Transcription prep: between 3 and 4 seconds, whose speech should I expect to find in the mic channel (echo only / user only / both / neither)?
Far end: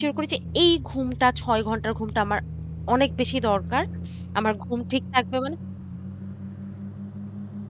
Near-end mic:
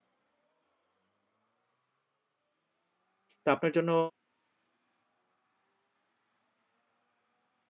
user only